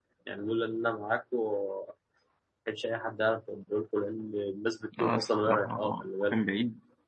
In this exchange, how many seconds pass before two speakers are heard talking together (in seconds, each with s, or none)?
4.9 s